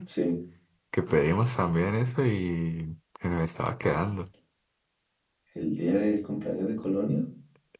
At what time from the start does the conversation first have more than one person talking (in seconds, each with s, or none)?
none